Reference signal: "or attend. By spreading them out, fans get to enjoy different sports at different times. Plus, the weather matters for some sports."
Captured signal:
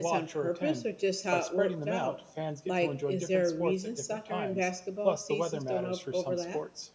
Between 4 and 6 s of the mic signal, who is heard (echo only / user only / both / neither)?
both